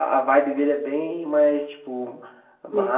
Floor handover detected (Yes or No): No